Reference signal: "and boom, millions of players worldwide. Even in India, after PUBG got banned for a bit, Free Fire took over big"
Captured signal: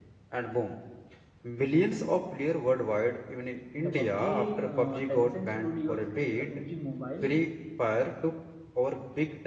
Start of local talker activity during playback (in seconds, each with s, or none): 3.8 s